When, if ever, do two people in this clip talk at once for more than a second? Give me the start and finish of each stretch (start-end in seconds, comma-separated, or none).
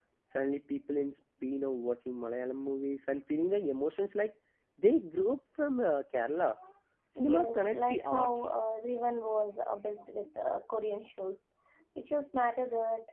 7.2-8.5